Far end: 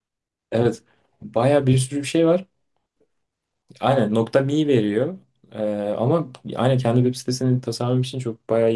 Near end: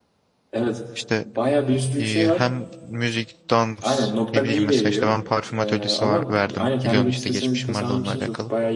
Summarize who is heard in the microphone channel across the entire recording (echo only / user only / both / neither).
both